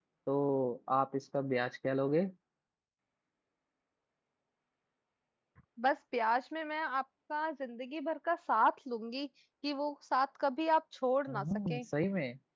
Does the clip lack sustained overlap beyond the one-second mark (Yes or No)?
Yes